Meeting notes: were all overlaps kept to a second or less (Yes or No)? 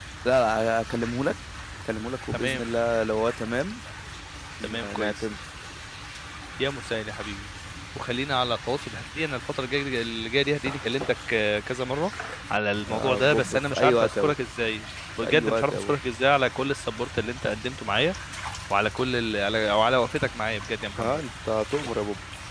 No